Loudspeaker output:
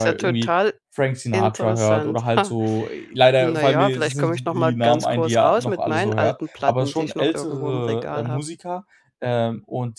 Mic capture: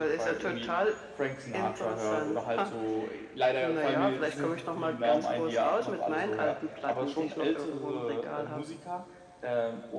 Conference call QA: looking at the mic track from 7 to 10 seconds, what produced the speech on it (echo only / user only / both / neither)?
echo only